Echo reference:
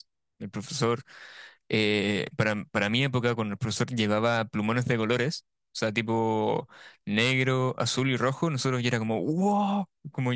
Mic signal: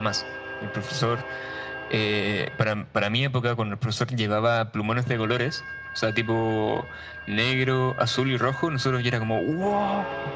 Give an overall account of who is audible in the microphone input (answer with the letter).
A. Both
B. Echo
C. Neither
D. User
B